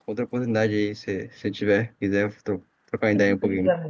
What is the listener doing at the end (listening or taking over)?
taking over